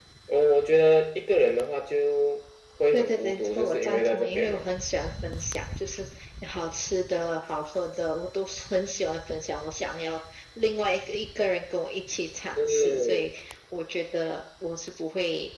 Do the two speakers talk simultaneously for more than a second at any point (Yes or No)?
Yes